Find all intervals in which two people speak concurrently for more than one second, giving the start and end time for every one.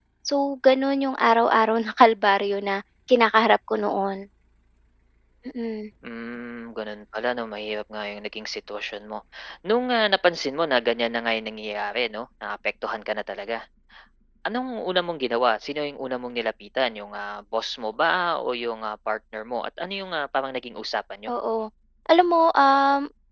none

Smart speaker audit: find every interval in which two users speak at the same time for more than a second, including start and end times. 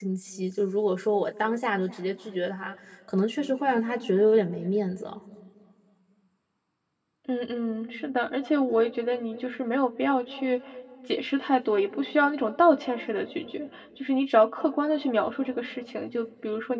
none

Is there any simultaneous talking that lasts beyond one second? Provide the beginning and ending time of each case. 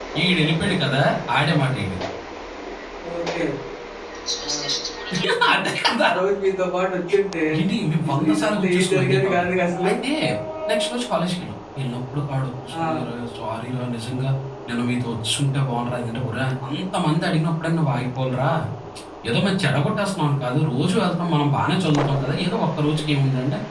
8.1-9.5

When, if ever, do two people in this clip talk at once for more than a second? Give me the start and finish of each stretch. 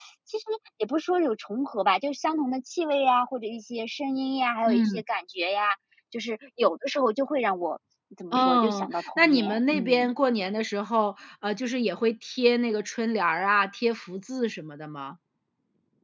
8.3-10.1

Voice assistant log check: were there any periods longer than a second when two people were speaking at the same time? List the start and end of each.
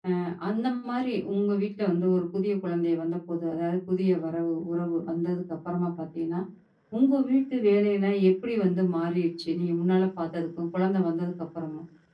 none

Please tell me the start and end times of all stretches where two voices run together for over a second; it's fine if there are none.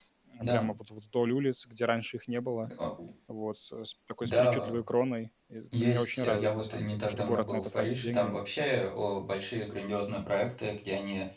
5.8-8.3

